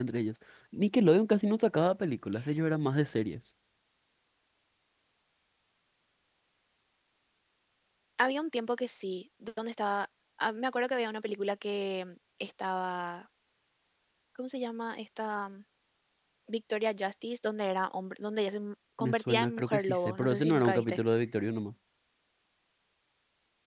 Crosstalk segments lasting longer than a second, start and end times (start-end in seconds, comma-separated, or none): 19.0-21.0